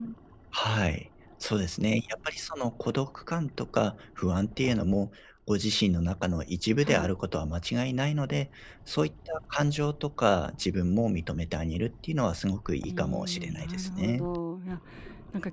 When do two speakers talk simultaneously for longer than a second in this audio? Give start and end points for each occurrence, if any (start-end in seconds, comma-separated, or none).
12.8-14.3